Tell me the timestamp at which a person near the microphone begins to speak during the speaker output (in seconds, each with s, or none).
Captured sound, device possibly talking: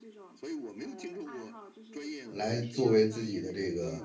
2.3 s